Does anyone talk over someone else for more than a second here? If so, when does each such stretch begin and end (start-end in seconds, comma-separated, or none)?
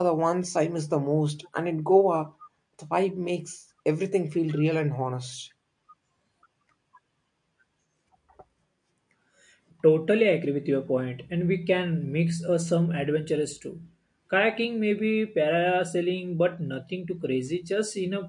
none